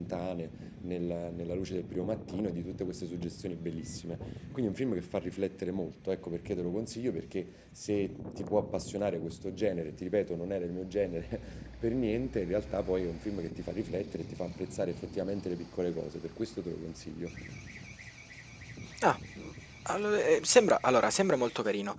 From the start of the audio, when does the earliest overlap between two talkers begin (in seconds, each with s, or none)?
none